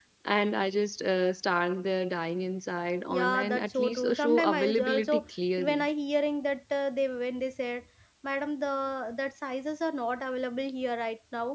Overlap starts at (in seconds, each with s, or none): 3.1 s